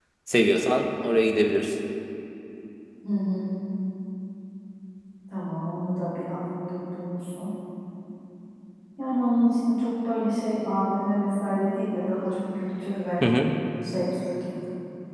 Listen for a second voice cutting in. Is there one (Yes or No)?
No